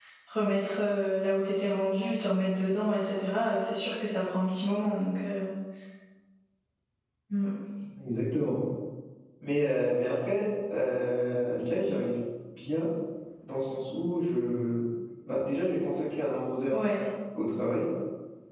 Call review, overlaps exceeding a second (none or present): none